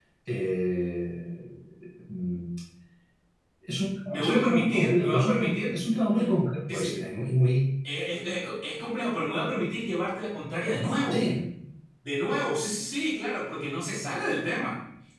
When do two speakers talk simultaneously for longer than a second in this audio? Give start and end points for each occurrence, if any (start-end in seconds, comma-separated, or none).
4.1-5.5